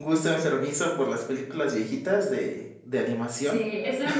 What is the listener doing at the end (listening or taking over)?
taking over